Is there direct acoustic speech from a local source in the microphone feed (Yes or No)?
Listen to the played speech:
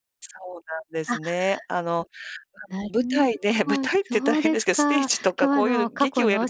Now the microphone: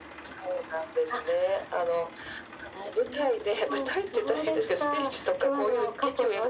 No